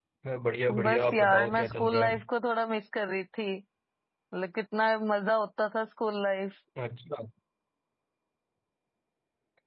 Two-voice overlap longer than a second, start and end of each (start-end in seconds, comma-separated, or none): 0.8-2.2